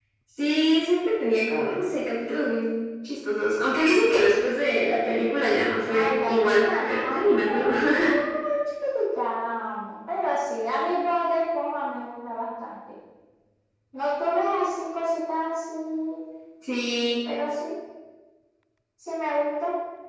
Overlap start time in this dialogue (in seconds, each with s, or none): 5.9 s